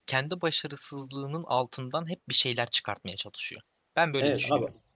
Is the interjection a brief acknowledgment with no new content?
No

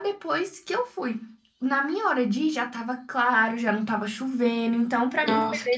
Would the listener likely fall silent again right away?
No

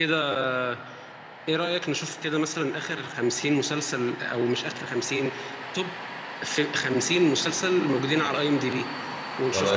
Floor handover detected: No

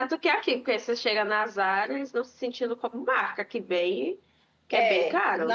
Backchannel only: No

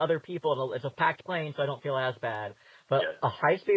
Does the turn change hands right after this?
No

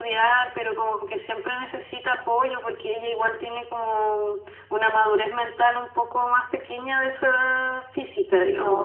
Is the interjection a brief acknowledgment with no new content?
No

